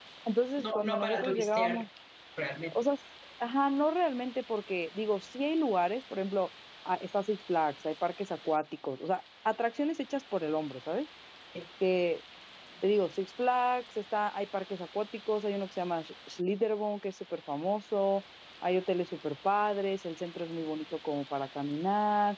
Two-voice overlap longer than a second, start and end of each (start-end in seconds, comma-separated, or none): 0.6-1.8